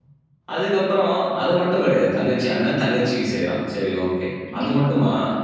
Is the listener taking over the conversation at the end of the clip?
No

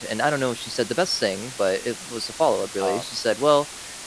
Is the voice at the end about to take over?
No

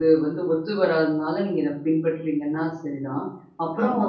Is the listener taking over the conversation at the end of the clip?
No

